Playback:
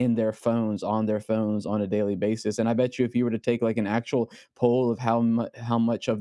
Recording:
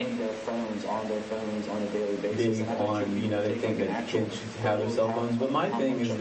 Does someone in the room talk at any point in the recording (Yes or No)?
Yes